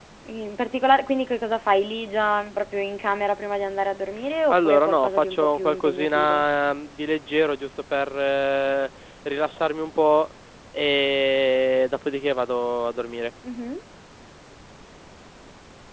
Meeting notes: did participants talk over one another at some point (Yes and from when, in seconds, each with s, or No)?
Yes, from 4.5 s